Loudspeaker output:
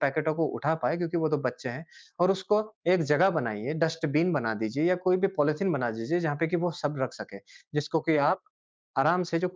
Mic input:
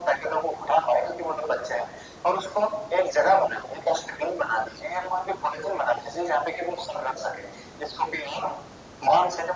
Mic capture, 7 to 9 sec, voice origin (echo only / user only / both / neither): echo only